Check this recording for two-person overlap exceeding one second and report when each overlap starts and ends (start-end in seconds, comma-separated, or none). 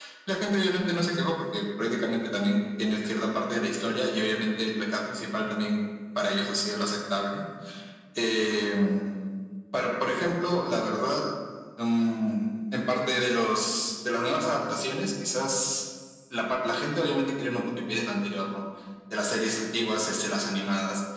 none